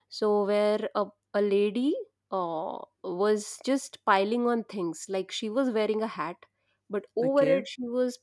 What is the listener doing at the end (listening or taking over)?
listening